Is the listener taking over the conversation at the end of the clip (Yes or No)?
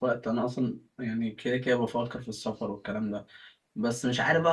No